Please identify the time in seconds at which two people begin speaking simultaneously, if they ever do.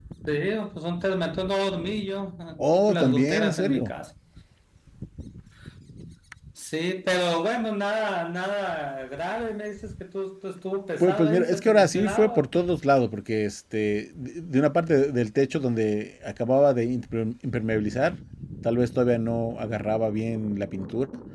3 s

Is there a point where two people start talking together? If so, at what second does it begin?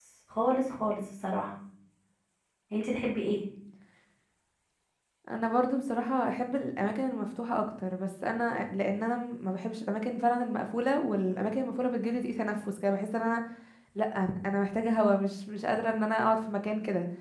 none

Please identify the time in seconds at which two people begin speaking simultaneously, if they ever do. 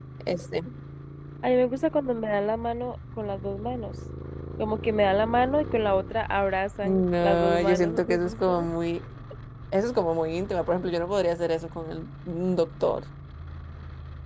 7 s

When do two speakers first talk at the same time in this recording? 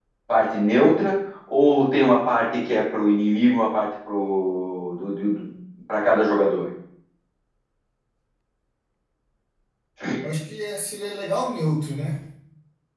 none

